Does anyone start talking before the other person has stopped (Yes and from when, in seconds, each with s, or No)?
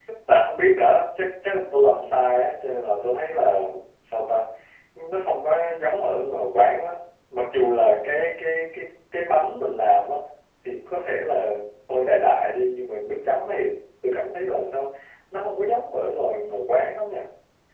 No